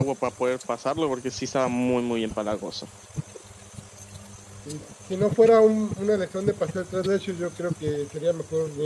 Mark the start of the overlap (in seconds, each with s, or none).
none